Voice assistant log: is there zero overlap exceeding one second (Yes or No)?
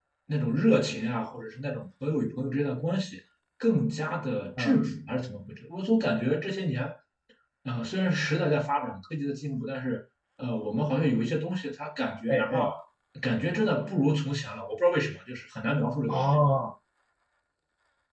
Yes